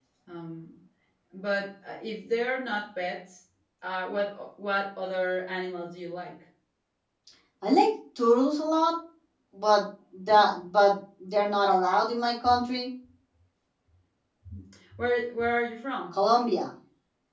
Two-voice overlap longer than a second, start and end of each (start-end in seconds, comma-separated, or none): none